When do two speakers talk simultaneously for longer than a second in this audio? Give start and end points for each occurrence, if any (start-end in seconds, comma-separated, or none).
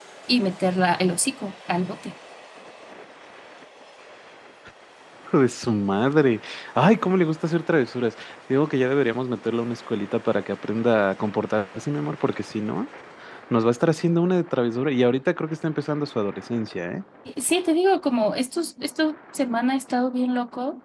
none